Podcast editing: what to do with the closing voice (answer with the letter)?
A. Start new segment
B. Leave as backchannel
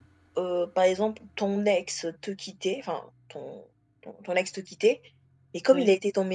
B